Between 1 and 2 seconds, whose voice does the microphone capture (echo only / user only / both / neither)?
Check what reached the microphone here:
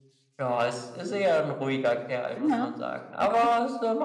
echo only